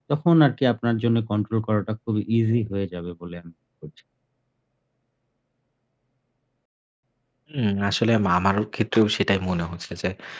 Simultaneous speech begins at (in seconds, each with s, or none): none